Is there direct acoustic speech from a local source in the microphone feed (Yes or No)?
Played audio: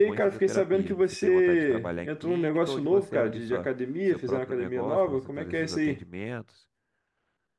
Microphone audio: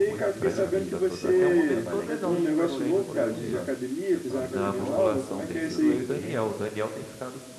Yes